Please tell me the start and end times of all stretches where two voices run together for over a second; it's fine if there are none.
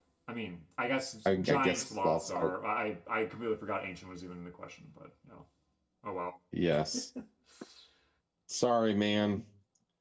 1.2-2.5

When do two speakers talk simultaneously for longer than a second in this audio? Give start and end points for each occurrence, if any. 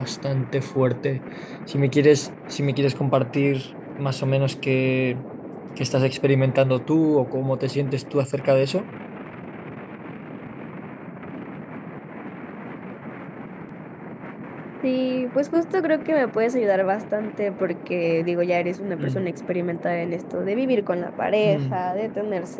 none

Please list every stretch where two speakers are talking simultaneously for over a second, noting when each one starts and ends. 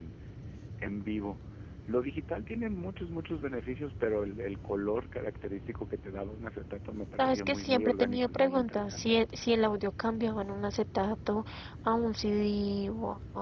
7.2-9.1

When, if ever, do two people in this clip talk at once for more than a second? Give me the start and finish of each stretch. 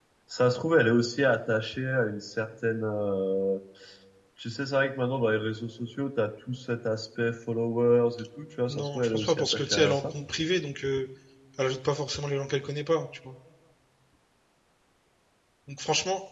8.7-10.1

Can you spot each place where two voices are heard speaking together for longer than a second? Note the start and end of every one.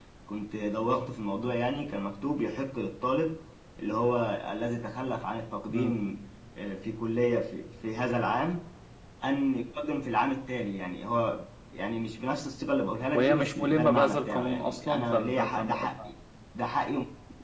13.1-16.0

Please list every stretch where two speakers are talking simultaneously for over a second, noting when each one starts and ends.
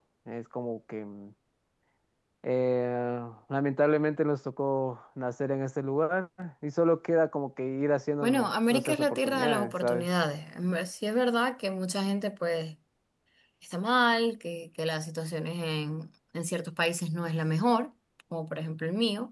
8.2-10.1

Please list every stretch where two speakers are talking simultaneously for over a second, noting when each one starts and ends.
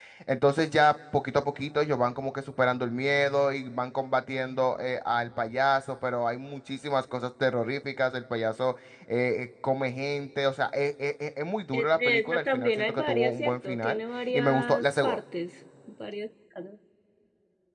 11.7-15.2

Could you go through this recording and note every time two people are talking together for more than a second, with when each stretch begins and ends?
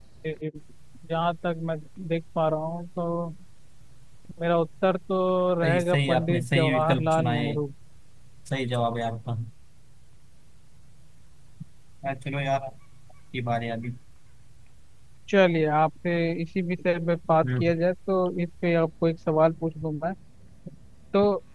5.6-7.6

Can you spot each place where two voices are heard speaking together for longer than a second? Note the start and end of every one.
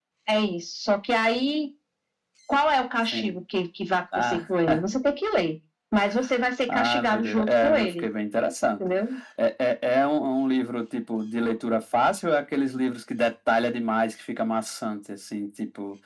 6.7-8.1

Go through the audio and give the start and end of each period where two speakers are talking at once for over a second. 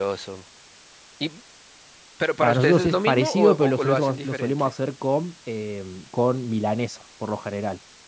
2.4-4.7

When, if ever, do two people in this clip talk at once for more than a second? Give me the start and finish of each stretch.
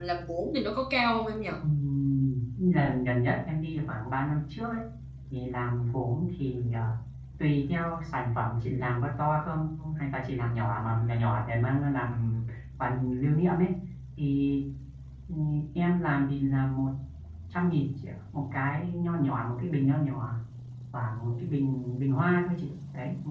none

